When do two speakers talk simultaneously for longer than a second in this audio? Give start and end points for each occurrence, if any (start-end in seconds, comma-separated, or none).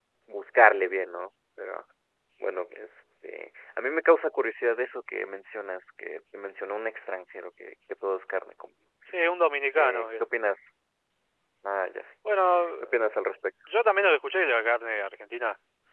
none